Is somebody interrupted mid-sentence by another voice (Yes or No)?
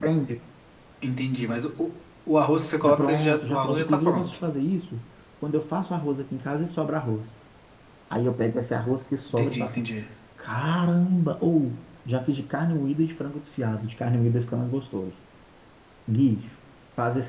Yes